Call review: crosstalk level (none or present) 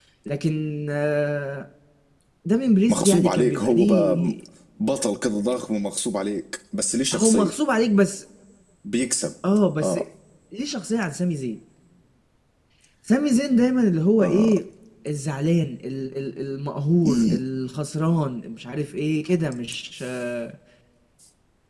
present